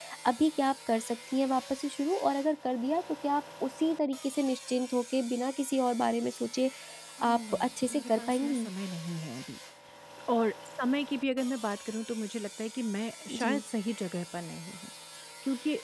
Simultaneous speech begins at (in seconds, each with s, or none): 7.3 s